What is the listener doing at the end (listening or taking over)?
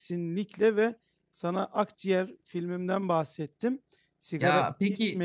listening